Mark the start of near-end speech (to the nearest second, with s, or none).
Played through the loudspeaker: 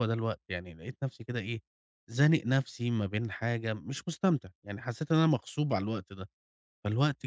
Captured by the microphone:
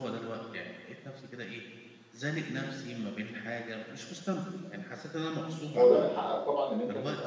6 s